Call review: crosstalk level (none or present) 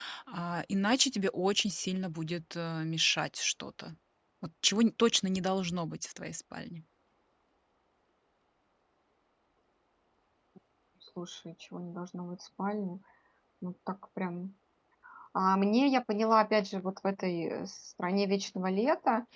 none